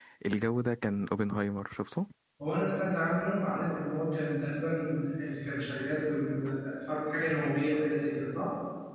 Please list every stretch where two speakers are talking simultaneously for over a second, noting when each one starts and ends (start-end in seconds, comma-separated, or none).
none